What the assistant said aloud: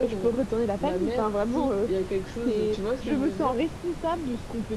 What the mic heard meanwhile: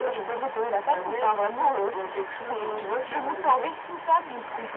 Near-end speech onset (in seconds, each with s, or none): 3.3 s